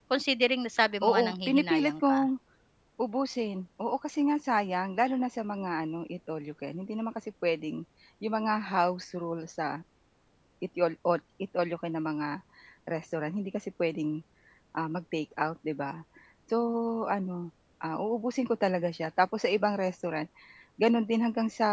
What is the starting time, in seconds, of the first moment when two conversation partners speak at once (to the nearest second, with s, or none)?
1 s